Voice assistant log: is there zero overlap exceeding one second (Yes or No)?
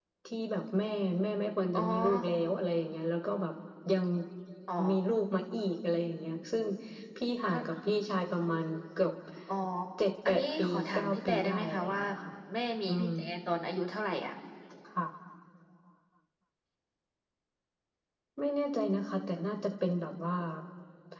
No